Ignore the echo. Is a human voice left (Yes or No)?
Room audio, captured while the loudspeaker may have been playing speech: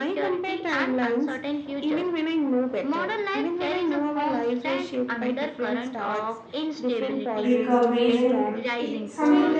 Yes